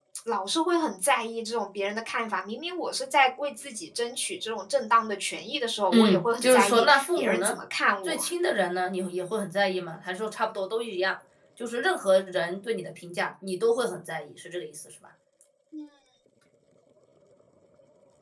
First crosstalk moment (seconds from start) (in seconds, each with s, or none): 5.9 s